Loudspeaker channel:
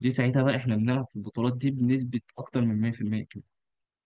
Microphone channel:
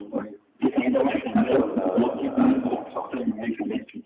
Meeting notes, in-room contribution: present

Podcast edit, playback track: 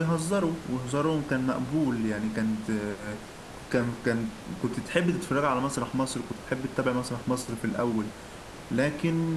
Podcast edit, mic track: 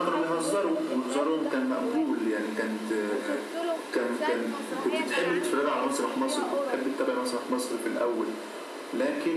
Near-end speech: present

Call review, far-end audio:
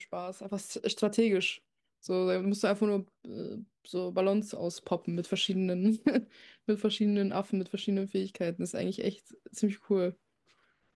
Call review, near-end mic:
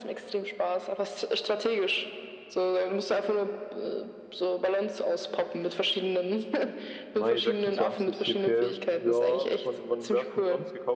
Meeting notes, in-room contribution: present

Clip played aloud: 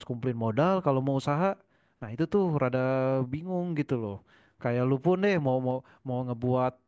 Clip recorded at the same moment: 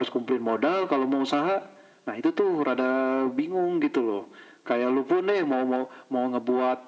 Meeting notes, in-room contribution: none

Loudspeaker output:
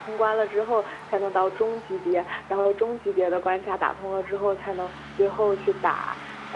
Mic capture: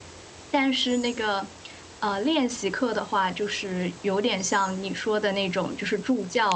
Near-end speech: present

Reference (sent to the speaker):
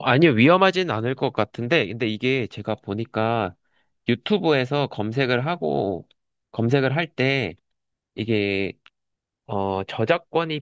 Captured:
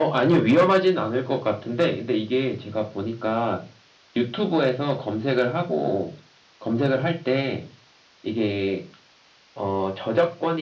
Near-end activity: none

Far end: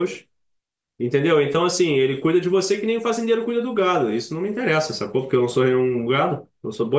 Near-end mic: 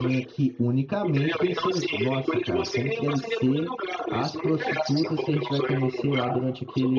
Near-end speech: present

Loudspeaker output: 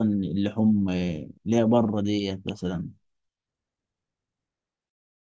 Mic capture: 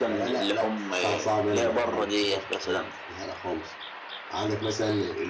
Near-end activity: present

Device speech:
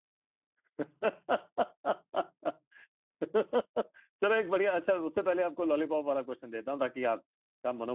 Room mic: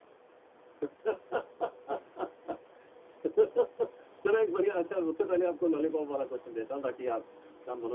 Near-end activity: none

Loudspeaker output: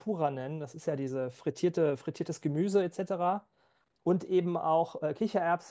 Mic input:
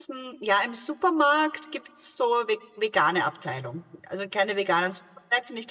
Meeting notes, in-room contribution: present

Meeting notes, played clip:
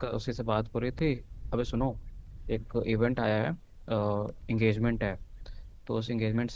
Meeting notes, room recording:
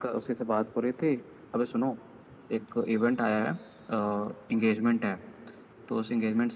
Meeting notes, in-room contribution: none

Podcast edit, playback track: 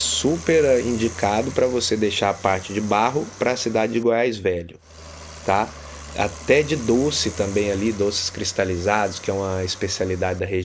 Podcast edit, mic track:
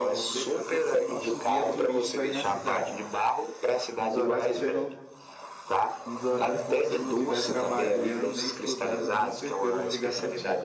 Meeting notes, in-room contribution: present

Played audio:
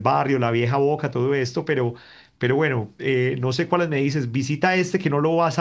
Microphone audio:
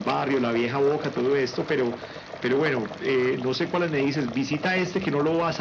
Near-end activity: none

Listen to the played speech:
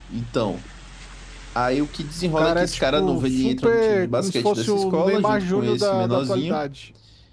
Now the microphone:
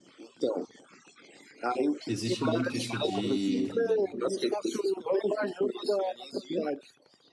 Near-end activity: present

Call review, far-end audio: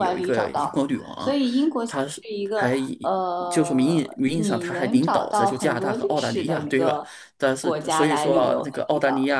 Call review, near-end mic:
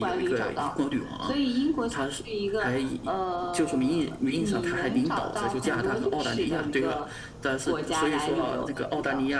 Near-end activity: none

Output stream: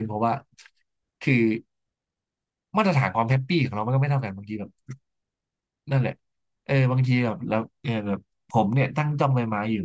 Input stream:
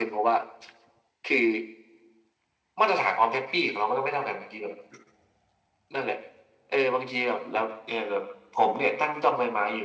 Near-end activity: none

